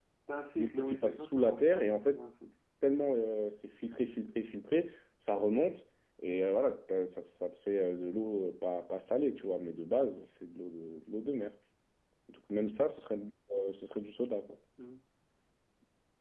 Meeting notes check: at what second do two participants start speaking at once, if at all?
0.6 s

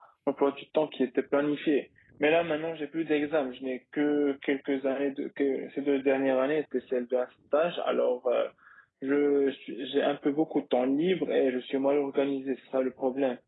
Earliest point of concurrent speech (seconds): none

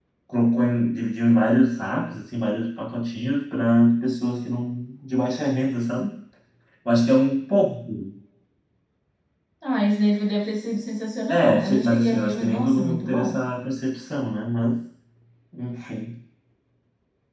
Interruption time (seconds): 11.3 s

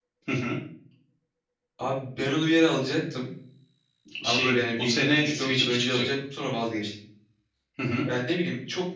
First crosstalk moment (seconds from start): 4.2 s

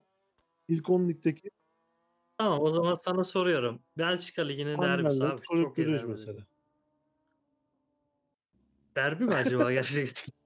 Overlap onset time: 4.7 s

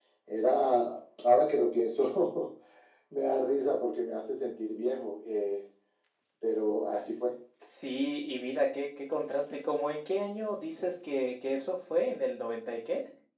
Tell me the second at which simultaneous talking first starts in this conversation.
none

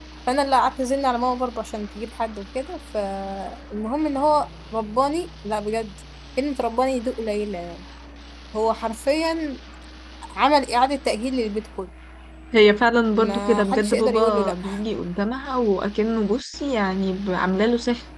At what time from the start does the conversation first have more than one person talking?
13.1 s

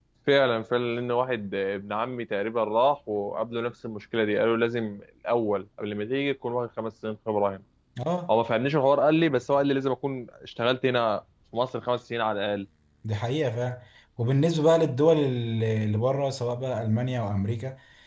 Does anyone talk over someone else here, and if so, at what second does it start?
none

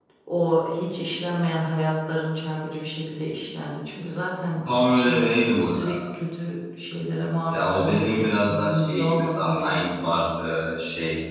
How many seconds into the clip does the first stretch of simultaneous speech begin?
4.6 s

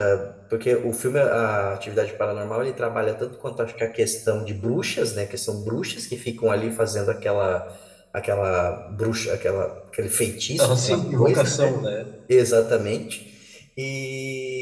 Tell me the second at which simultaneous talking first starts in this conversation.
10.6 s

